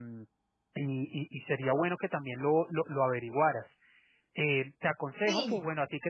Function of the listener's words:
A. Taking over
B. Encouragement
B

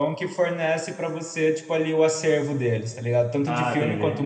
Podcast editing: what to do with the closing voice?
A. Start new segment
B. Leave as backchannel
B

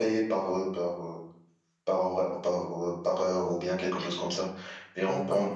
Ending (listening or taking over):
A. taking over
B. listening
B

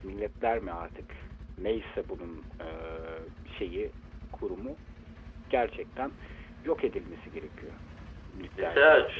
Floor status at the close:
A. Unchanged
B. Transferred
B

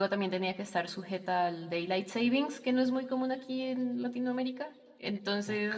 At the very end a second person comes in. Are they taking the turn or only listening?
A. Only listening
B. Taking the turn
B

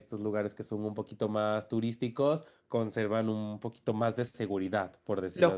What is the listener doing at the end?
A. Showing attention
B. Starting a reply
B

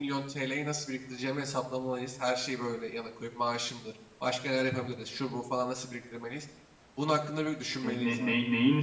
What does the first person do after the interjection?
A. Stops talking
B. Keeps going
A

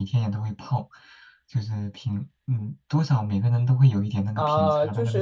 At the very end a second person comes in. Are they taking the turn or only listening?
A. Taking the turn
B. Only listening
A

